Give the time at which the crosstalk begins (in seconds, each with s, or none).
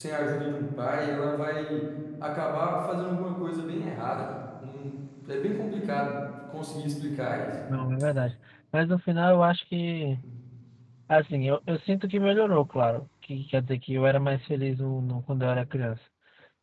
none